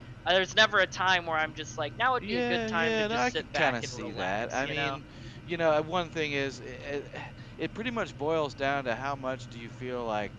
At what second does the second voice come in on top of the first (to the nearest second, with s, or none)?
2 s